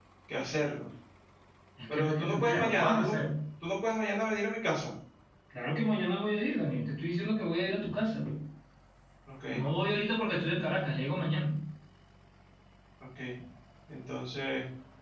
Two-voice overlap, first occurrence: 1.9 s

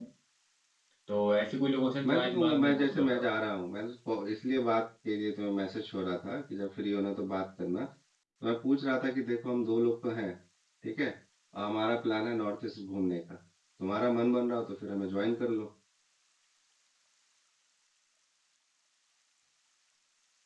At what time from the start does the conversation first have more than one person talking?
2.0 s

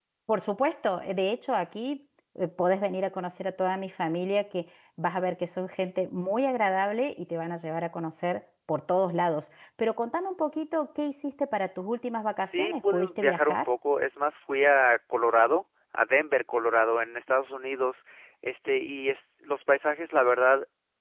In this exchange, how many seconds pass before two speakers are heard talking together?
12.4 s

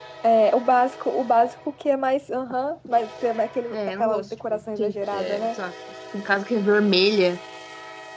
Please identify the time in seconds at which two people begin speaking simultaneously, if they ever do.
3.7 s

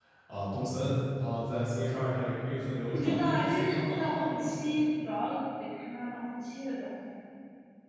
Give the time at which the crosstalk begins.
2.9 s

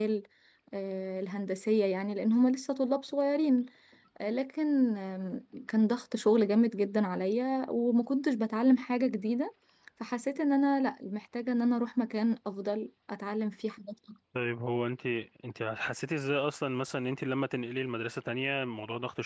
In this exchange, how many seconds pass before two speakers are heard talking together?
none

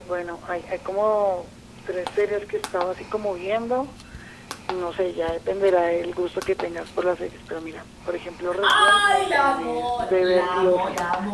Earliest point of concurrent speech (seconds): 8.6 s

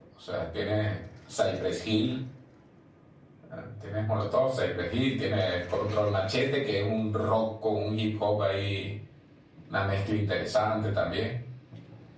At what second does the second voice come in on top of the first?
none

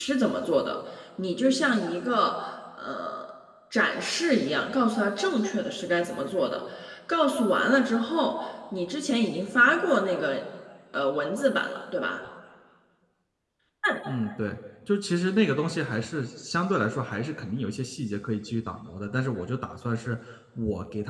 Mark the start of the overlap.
none

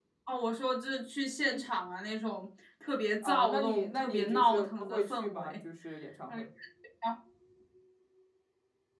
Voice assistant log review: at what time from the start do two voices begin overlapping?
3.2 s

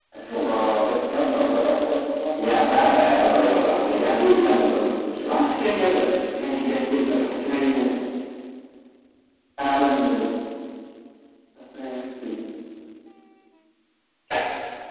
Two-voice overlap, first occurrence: 2.4 s

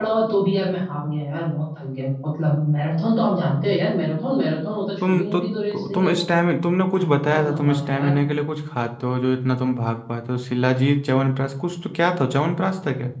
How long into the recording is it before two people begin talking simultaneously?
5.0 s

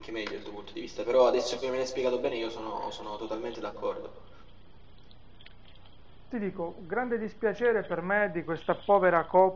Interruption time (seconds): none

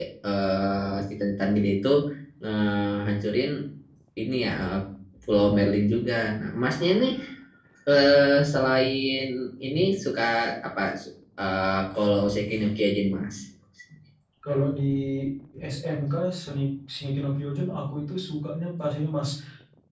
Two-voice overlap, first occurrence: none

